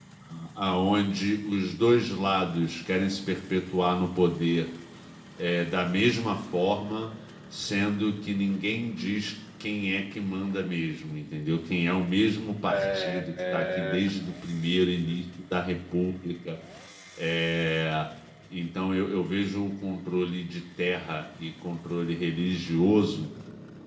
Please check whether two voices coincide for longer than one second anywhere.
Yes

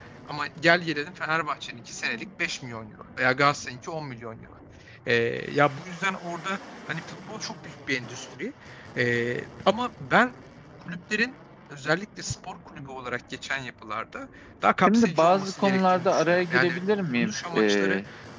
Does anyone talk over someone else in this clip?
Yes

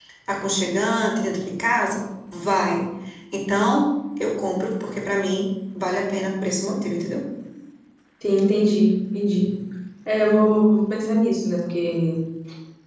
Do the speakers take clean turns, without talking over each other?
Yes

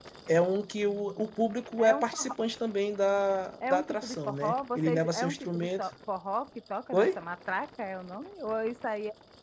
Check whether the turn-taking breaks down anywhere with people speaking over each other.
Yes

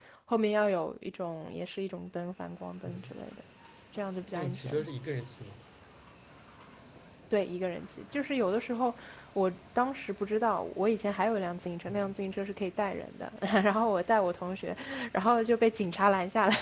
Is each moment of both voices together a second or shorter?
Yes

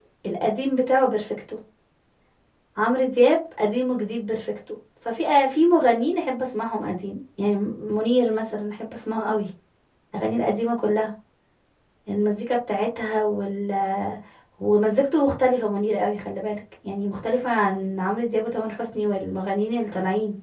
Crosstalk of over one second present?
No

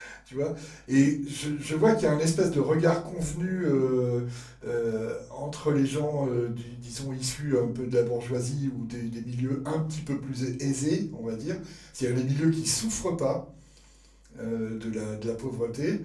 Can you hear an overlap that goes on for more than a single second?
No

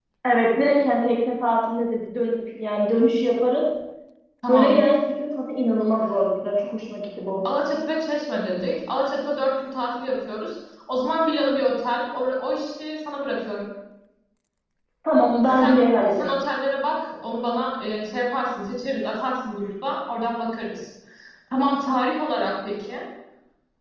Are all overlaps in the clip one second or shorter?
Yes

